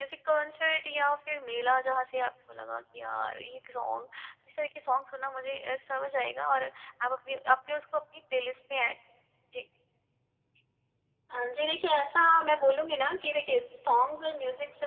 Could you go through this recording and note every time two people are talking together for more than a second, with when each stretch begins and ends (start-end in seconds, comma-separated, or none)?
none